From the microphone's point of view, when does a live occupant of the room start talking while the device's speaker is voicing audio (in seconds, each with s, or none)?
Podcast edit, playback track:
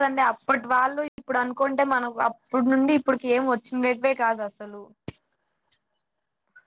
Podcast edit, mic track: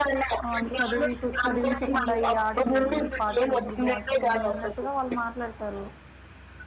0.5 s